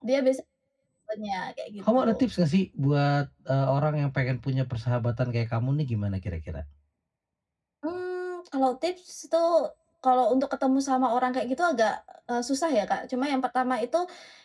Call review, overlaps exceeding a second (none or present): none